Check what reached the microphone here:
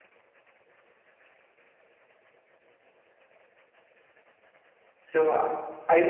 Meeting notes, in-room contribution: present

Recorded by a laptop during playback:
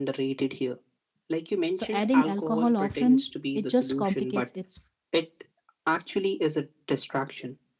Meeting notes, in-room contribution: present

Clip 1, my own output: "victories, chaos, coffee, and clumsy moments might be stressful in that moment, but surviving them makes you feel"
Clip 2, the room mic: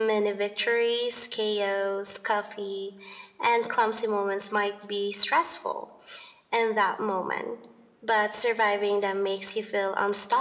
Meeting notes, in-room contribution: none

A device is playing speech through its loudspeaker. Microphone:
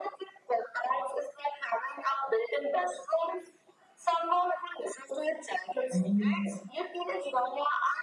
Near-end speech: present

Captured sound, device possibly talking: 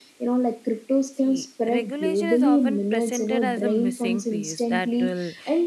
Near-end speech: present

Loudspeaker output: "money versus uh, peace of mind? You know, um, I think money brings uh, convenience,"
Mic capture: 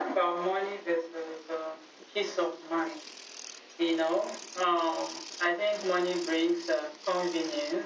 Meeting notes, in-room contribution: none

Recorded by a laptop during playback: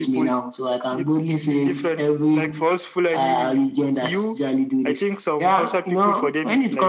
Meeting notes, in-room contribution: none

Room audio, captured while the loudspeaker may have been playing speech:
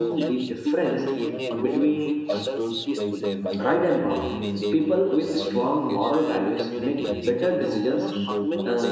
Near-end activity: present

